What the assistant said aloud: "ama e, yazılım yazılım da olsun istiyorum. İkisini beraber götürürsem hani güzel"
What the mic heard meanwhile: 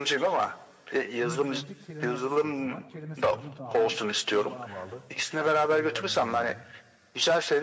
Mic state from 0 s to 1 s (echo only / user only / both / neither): echo only